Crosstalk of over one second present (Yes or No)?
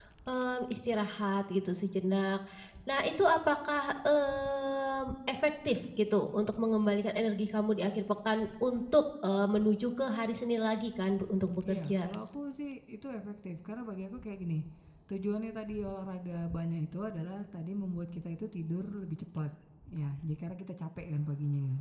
No